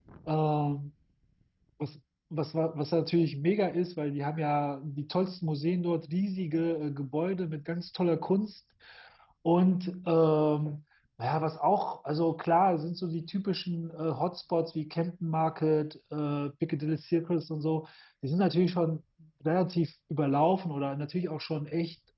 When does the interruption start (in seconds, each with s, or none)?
none